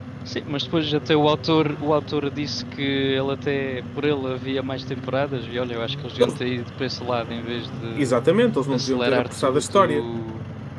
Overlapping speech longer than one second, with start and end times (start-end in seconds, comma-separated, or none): 8.7-10.0